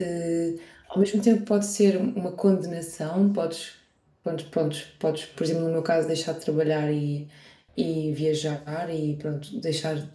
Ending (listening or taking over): listening